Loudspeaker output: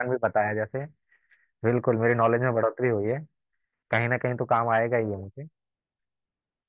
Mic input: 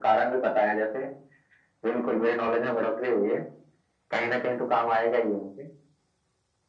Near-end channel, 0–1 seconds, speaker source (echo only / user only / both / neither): echo only